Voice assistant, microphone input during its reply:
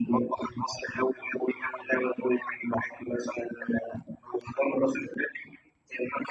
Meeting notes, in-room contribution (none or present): none